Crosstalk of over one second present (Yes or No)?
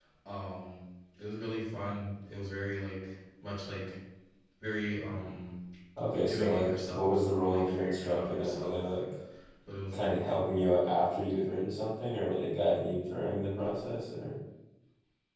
Yes